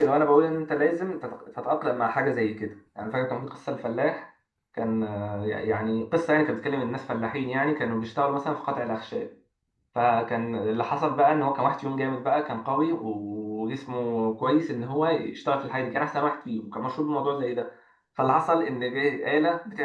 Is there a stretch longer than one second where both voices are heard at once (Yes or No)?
No